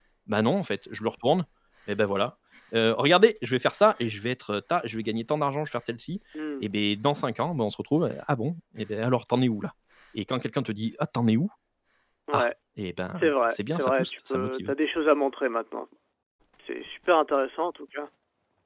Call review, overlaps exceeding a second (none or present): present